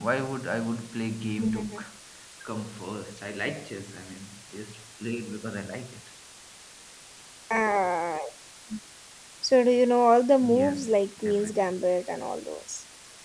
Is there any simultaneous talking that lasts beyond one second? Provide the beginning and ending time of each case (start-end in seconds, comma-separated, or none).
10.4-11.7